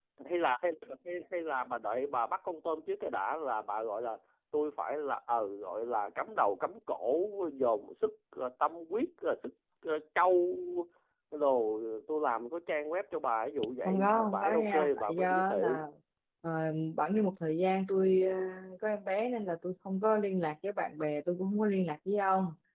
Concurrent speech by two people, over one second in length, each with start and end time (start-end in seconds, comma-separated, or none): 13.8-15.8